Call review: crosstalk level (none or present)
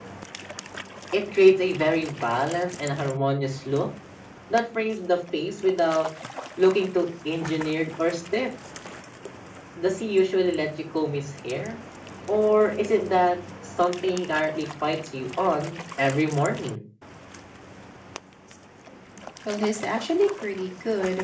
none